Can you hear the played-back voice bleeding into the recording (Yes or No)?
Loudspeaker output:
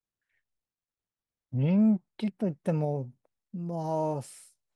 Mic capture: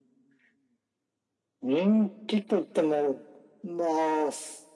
Yes